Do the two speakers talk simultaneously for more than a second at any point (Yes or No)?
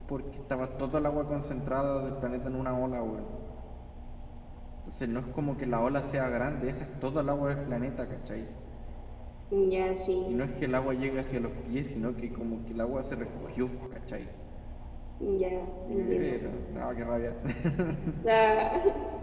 No